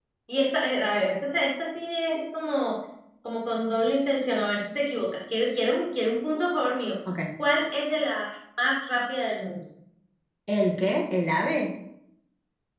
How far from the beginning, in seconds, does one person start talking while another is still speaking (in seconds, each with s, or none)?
none